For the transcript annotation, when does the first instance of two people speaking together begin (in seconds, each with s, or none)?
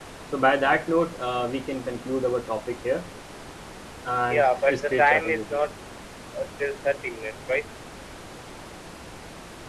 4.3 s